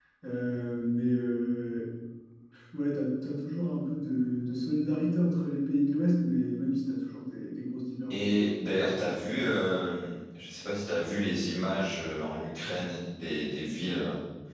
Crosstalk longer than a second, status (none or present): none